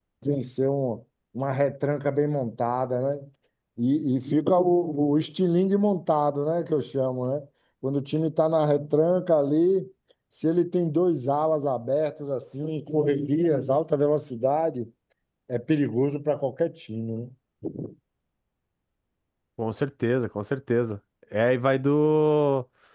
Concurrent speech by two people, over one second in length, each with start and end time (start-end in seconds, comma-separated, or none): none